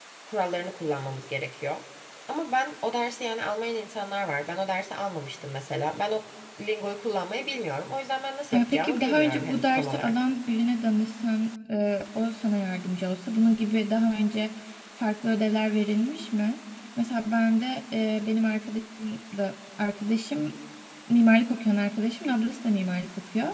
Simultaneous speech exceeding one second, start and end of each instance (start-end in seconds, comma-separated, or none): 8.5-10.1